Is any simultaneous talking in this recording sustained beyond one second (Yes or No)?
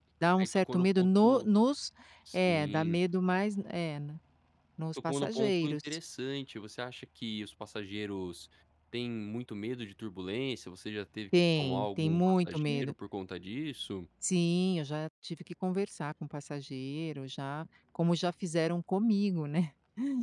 Yes